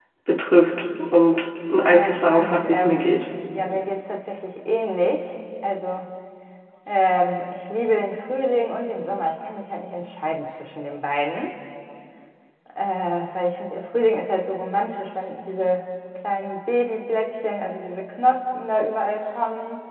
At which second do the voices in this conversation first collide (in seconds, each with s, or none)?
1.8 s